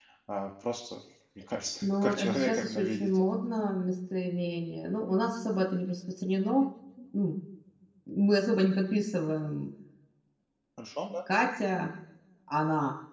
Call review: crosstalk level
present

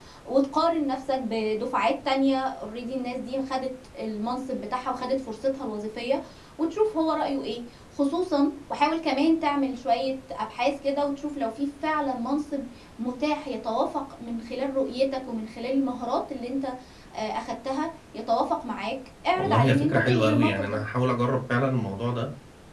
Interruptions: present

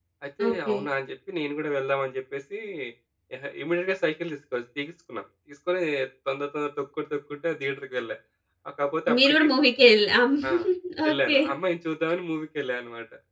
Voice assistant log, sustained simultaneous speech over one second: none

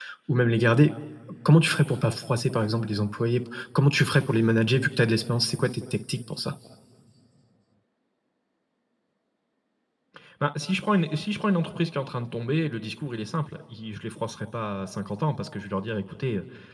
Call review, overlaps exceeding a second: none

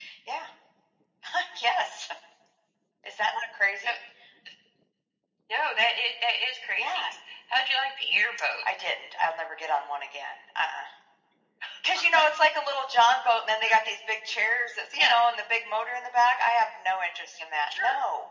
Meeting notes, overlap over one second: none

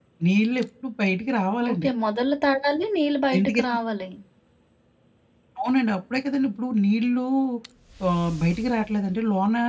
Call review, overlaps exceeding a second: none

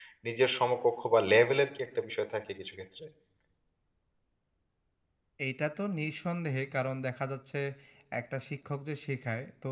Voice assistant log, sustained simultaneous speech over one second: none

